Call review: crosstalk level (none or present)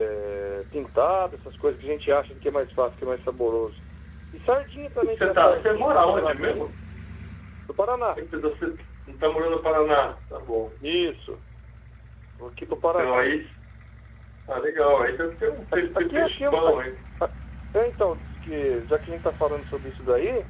present